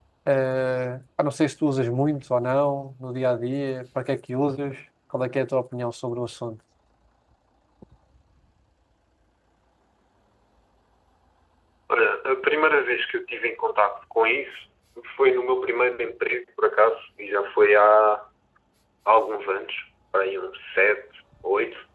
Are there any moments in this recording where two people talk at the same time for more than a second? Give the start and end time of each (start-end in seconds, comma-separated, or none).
none